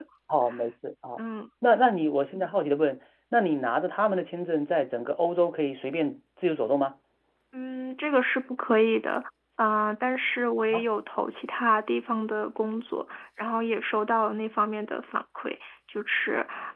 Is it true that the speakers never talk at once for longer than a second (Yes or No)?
Yes